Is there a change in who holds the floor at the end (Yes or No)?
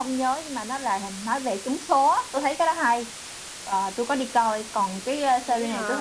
No